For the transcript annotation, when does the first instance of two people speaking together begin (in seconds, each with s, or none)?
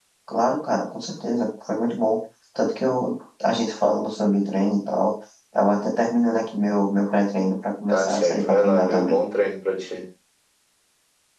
7.9 s